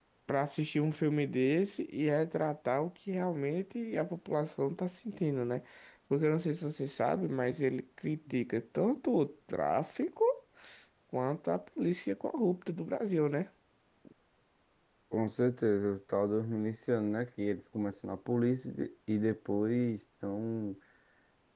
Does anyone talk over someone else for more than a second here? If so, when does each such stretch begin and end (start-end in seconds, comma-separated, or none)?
none